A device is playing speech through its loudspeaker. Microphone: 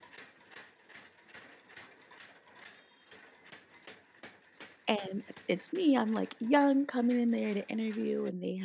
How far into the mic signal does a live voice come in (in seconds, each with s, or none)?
4.9 s